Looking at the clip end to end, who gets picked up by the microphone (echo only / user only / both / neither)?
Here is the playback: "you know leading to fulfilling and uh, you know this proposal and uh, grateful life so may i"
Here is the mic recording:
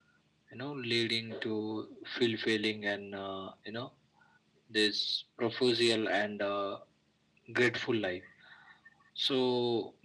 echo only